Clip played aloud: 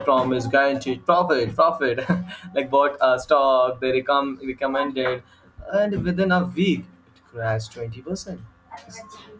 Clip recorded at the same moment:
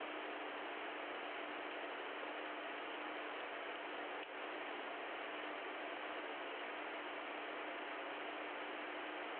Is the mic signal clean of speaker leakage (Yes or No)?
Yes